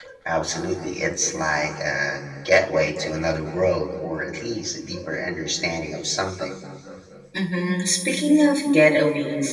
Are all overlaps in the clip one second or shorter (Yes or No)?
Yes